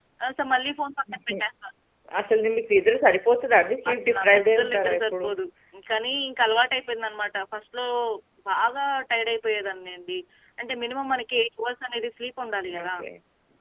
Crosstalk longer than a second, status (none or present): present